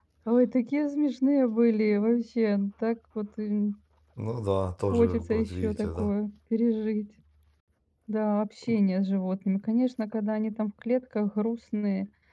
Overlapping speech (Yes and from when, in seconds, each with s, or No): Yes, from 4.9 s